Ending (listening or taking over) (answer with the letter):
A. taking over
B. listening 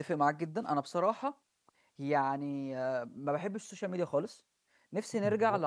B